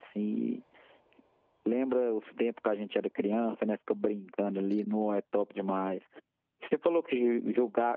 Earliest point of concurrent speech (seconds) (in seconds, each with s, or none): none